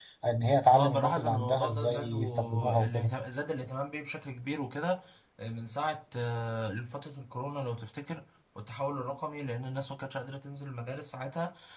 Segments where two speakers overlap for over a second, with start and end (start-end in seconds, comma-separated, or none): 0.7-3.1